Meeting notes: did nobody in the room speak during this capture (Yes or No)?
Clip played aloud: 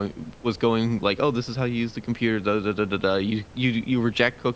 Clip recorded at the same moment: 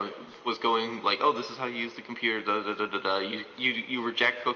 Yes